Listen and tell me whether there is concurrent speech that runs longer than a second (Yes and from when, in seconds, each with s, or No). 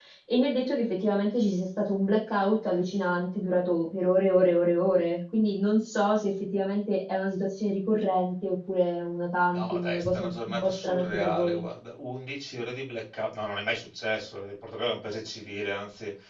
Yes, from 9.5 s